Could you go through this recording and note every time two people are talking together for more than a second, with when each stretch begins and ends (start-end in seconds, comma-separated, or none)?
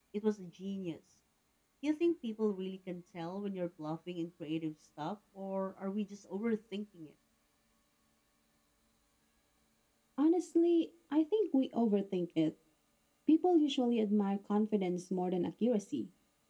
none